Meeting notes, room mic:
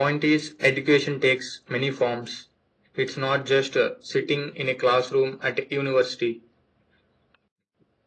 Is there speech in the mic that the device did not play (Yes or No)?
No